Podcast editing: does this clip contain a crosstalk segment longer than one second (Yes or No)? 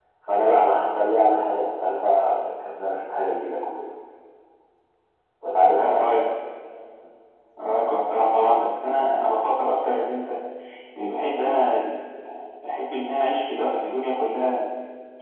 No